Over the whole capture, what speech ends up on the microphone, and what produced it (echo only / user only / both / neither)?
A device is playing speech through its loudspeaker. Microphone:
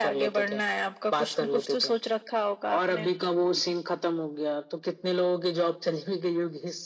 echo only